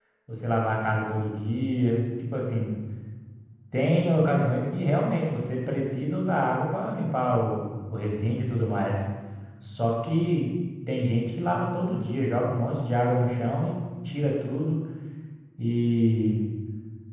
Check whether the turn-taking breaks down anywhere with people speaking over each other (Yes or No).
No